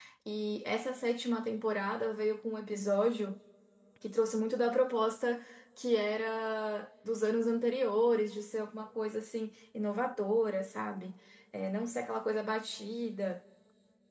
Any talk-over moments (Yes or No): No